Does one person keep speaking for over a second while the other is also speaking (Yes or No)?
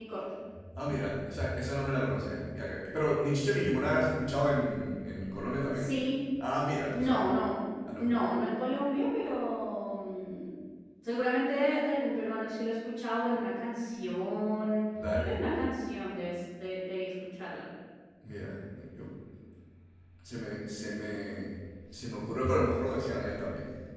No